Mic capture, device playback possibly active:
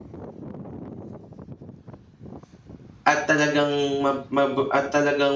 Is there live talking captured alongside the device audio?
Yes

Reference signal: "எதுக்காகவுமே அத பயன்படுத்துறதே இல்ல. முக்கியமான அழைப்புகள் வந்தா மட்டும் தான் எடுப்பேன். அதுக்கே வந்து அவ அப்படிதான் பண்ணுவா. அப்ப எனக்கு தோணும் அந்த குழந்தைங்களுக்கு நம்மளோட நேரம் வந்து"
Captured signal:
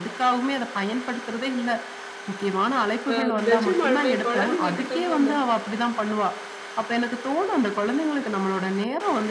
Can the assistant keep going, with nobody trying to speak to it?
No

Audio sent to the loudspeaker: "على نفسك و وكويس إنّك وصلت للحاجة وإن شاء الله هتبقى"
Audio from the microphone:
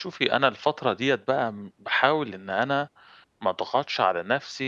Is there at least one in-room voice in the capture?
Yes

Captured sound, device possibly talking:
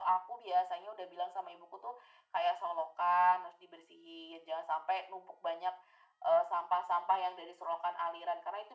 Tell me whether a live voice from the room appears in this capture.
No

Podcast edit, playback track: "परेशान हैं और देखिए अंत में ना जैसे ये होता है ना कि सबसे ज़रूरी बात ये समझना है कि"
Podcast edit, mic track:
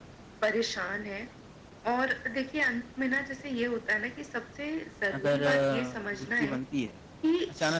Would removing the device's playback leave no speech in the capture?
No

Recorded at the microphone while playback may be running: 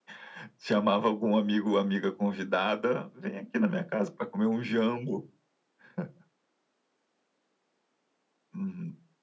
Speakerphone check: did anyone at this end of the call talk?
No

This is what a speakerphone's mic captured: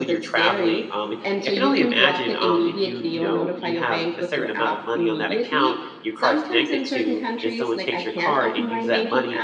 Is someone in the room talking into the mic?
Yes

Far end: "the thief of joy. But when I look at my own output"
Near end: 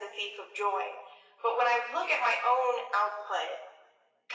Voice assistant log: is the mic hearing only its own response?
Yes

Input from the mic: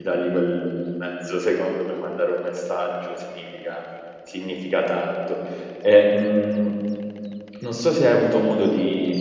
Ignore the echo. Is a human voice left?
Yes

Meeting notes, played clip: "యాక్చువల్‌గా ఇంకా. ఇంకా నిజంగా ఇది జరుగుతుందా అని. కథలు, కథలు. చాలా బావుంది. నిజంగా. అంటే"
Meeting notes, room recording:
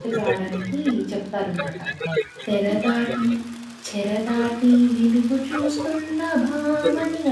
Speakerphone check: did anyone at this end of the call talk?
Yes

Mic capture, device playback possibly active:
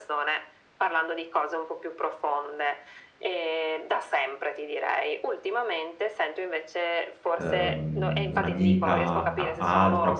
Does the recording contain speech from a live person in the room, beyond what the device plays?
Yes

